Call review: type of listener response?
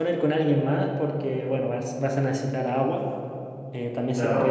listening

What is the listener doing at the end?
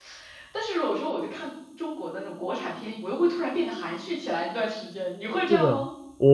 taking over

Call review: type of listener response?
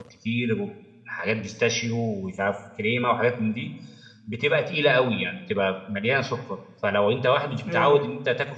listening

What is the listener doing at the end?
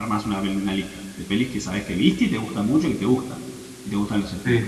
listening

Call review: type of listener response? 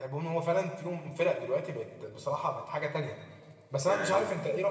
listening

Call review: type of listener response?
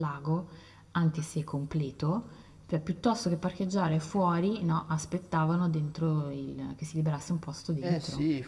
taking over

